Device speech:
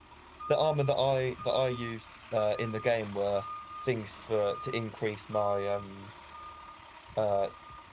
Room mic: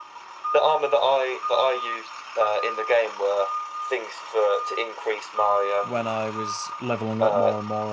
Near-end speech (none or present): present